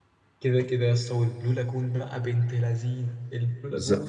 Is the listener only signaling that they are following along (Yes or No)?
No